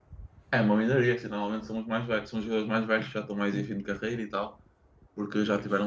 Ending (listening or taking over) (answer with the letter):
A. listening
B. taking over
A